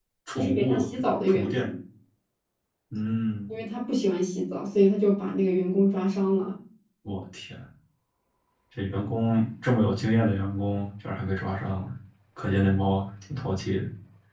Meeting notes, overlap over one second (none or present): present